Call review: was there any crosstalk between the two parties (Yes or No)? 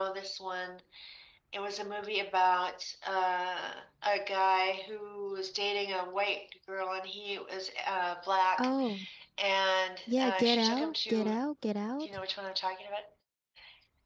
Yes